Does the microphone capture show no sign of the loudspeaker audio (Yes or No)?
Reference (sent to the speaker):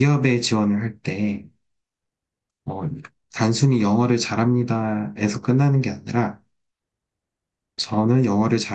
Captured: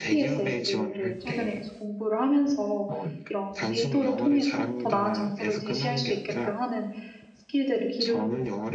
No